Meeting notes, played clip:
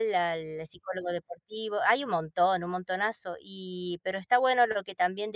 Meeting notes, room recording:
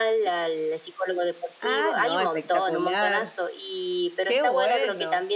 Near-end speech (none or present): present